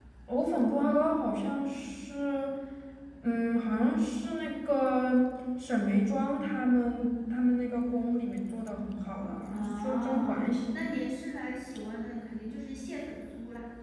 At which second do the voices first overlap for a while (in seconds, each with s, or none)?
9.5 s